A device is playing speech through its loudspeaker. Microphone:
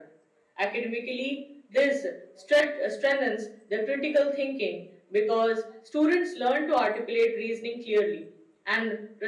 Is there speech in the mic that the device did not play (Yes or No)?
No